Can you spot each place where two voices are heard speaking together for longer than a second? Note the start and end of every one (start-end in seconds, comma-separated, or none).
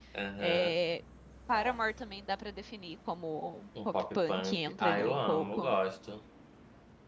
3.9-5.8